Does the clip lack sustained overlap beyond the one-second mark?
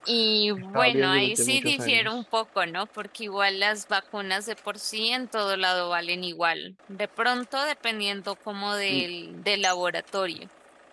No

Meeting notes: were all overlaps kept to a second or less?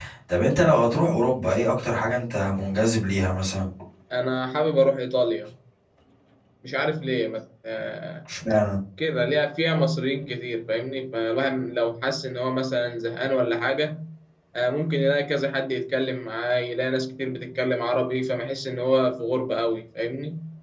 Yes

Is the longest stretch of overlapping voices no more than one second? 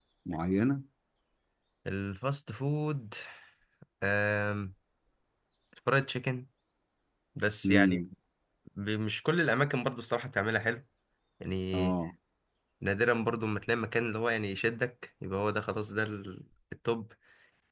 Yes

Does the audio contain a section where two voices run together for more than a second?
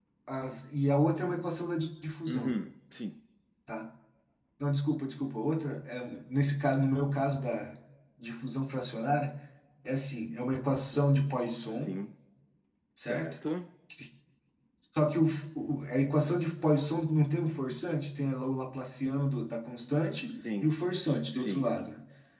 No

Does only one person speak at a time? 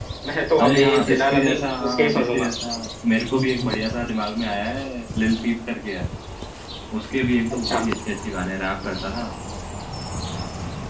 No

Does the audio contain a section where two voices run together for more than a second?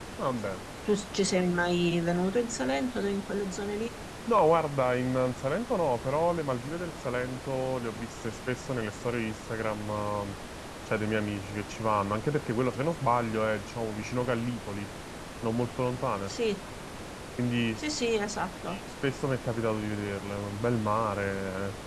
No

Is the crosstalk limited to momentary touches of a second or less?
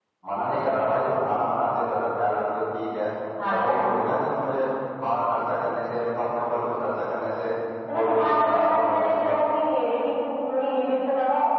No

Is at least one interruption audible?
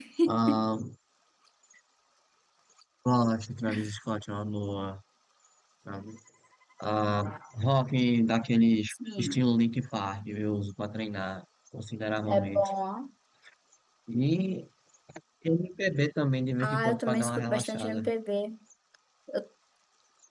Yes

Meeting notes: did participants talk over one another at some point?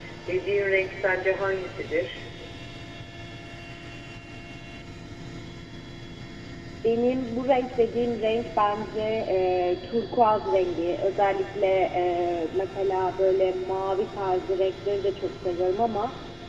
No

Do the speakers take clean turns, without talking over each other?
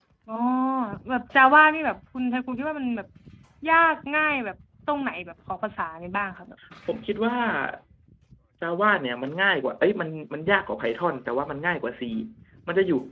Yes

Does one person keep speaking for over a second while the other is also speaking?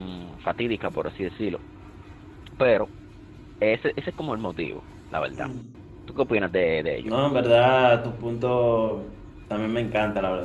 No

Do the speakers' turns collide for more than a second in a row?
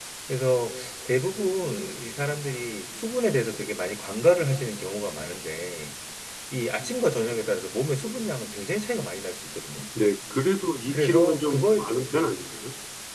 Yes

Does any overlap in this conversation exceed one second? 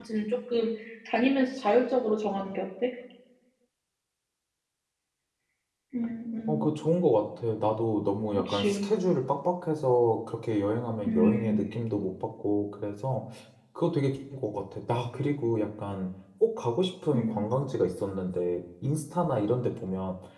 No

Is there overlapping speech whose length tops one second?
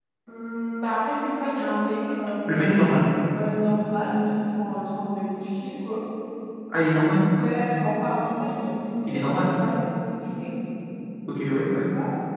No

